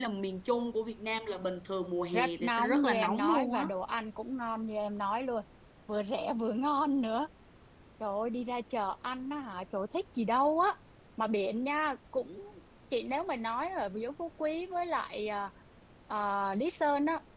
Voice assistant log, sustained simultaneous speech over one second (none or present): present